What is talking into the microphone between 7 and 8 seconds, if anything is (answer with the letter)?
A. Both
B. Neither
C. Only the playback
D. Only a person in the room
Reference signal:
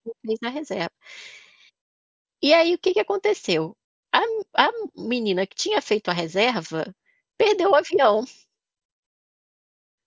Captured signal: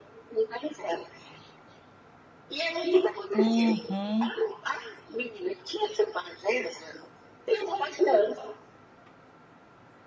C